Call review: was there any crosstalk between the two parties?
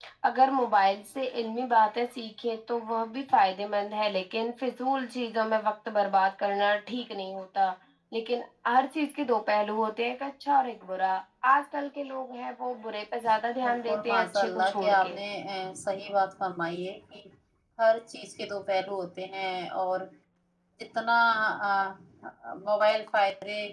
Yes, from 13.6 s

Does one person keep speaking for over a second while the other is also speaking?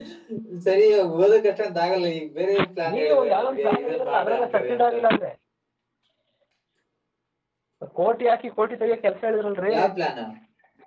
Yes, from 2.9 s

